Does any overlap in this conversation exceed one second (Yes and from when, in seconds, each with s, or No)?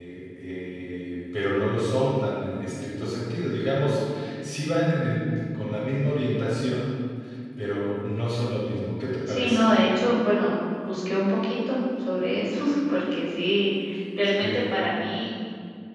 No